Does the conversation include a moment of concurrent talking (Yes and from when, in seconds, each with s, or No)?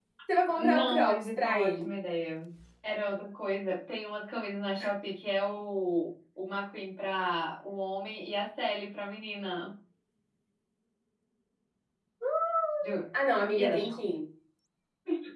Yes, from 0.6 s